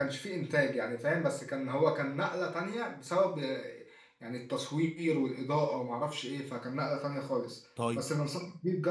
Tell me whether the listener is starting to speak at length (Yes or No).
No